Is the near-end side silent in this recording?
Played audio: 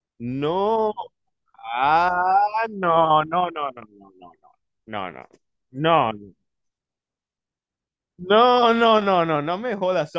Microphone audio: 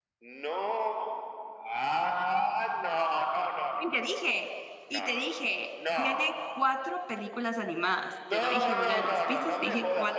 No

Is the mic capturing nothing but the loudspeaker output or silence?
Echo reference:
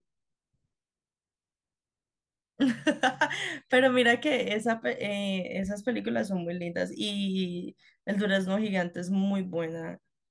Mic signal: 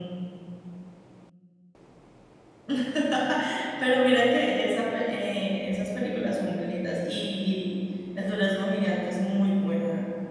Yes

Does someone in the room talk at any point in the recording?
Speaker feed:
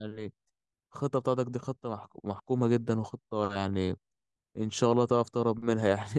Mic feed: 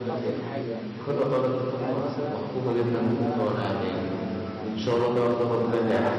Yes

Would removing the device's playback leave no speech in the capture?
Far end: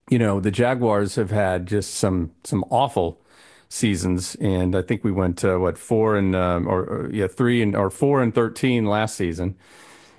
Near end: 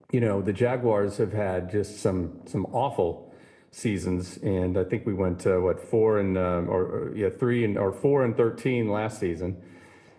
Yes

